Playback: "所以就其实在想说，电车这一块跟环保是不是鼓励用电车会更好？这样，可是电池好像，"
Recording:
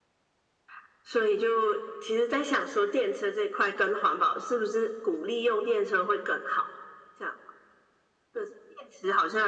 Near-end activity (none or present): none